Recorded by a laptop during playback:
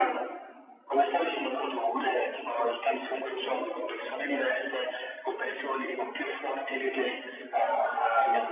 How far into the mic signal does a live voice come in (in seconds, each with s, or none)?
none